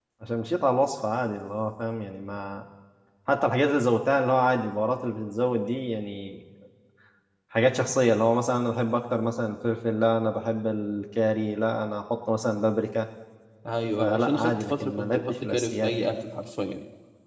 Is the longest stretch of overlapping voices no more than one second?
No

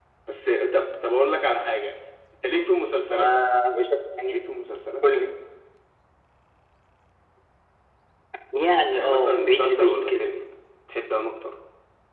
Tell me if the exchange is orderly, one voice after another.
No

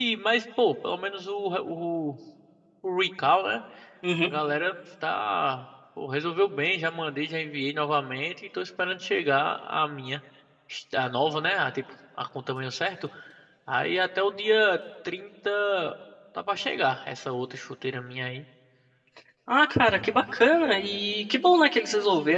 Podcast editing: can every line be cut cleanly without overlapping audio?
Yes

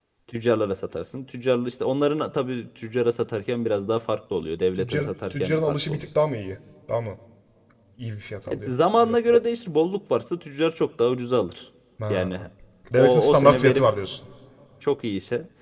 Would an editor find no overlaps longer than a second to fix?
No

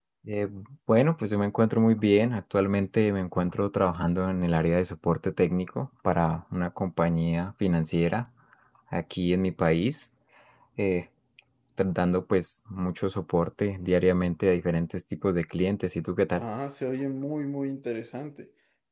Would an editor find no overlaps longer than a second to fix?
Yes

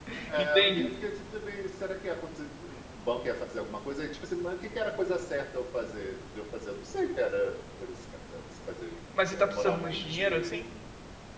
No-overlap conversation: No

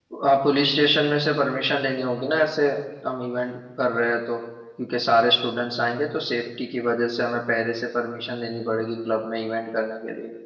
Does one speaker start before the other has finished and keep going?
No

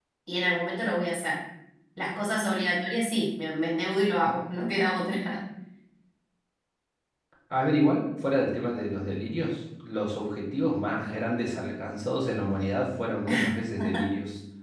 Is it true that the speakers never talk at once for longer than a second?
Yes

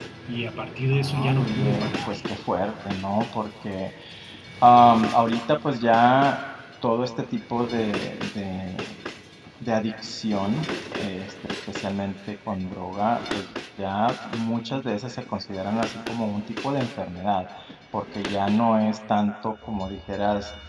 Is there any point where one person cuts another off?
Yes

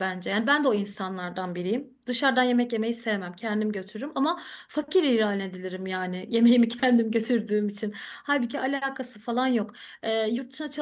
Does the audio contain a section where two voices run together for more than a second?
No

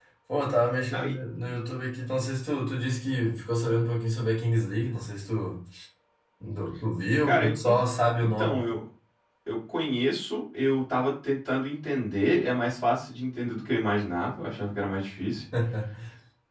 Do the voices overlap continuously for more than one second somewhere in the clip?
No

